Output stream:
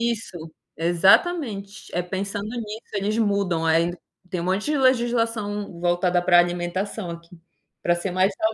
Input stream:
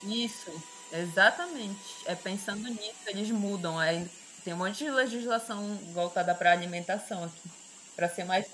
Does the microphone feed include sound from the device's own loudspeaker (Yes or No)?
Yes